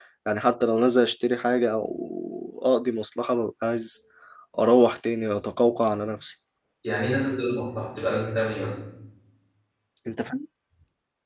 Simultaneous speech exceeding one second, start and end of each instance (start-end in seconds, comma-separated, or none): none